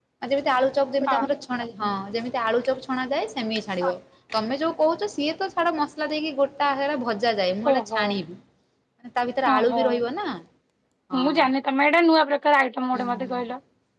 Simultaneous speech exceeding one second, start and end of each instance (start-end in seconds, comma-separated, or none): none